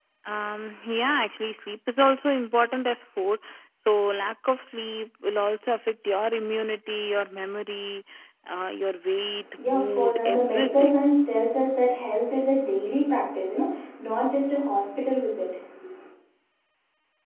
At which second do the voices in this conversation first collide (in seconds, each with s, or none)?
9.6 s